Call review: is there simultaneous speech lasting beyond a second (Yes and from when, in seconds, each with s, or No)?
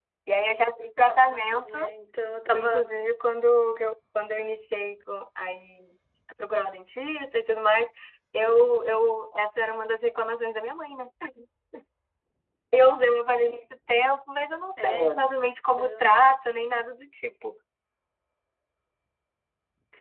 No